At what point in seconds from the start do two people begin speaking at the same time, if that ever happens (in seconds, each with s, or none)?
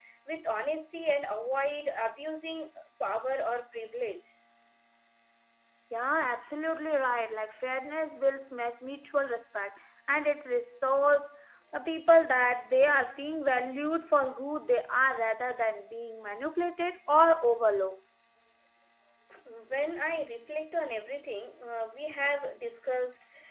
none